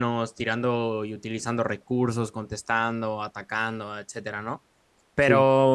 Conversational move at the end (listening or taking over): listening